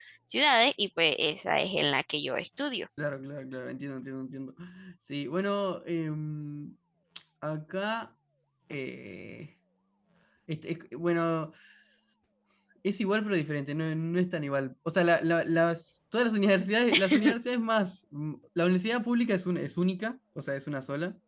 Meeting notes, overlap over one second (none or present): none